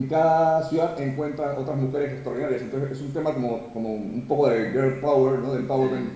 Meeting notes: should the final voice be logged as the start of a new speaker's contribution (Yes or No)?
No